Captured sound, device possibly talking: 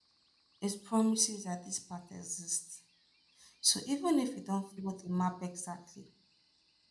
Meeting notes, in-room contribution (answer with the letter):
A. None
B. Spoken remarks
B